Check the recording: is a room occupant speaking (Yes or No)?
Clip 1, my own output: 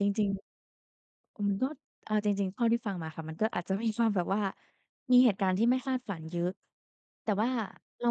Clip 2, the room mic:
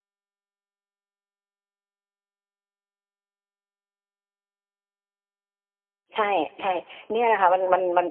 Yes